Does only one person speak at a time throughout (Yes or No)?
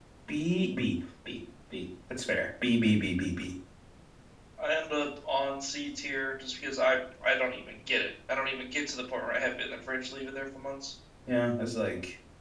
Yes